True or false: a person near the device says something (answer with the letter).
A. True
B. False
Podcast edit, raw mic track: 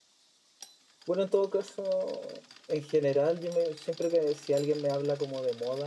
A